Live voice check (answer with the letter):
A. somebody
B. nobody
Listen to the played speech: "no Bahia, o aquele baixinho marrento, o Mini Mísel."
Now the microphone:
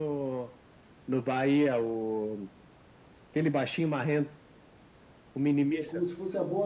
A